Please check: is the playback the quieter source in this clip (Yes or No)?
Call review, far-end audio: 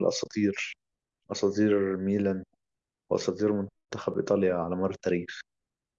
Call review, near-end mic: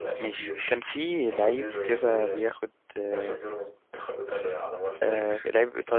Yes